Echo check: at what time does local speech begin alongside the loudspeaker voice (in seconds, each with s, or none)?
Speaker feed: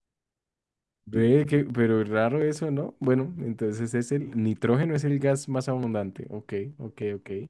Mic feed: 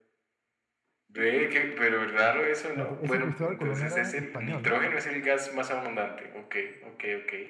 2.7 s